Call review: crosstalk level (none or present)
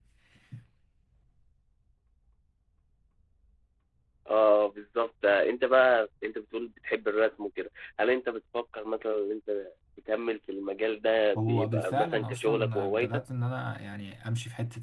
present